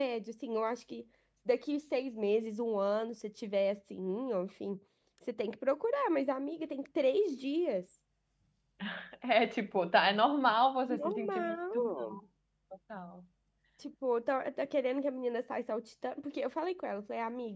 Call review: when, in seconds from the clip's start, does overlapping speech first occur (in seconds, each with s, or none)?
10.9 s